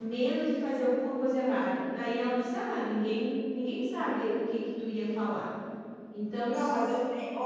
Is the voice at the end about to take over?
Yes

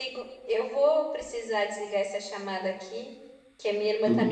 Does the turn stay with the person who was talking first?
Yes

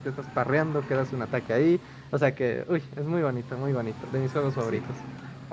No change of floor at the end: No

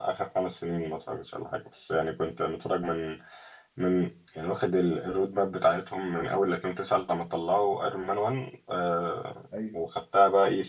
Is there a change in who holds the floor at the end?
No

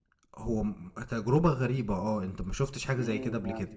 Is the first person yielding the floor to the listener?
Yes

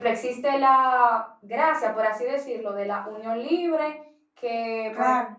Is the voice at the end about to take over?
No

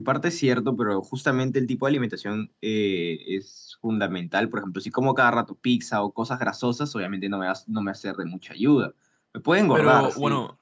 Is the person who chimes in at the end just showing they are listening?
No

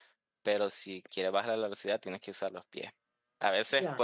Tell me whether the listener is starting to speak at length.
No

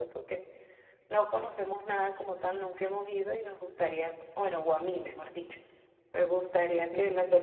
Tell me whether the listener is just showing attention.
Yes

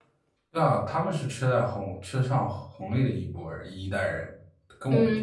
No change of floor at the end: No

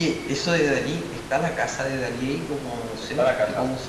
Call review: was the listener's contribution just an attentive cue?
No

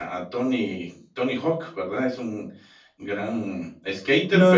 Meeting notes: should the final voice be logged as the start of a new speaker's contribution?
Yes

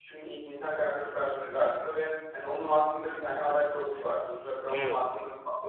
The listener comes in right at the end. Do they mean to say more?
No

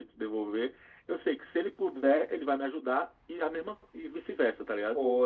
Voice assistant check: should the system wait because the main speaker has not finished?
No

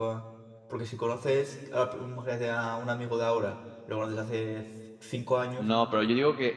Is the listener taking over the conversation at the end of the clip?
Yes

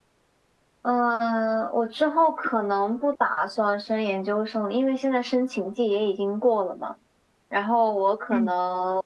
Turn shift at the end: No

